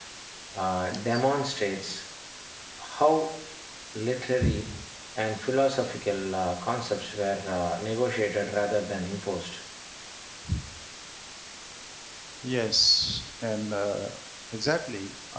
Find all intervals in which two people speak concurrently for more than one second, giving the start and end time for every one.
none

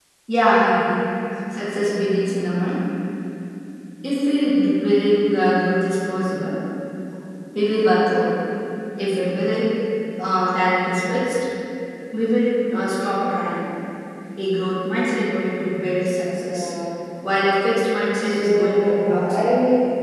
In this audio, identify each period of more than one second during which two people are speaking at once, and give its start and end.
18.2-19.4

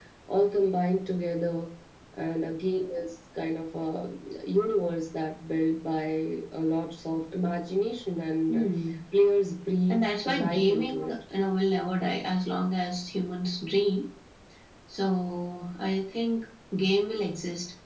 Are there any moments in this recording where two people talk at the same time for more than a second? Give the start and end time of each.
9.9-11.1

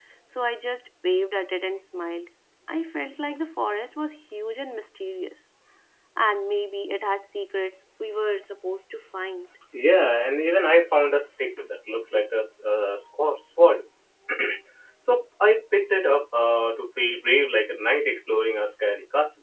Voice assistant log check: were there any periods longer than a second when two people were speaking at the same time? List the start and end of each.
none

